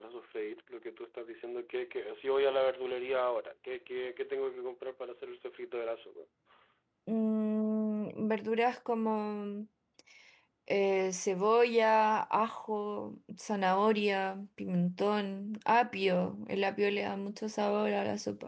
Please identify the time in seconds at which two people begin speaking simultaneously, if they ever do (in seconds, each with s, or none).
none